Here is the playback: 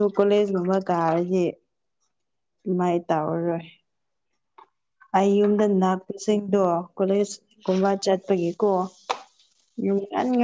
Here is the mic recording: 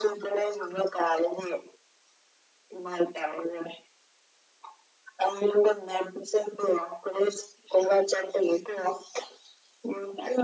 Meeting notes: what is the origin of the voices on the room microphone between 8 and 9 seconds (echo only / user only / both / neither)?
echo only